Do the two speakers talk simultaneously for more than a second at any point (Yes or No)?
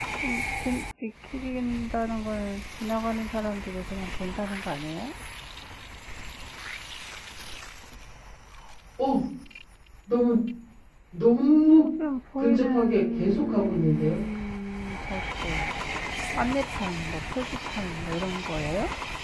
Yes